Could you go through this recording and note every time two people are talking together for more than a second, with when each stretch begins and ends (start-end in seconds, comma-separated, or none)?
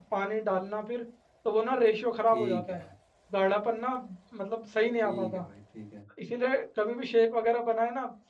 none